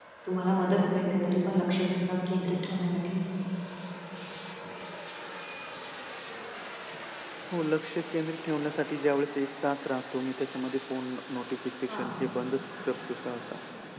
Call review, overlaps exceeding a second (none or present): none